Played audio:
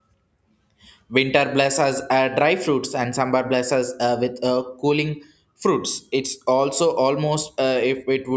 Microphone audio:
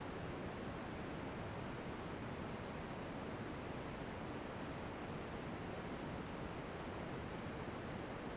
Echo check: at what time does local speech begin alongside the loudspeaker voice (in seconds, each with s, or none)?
none